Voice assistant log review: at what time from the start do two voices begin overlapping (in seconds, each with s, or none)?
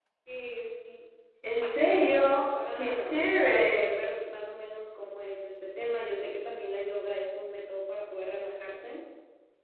1.6 s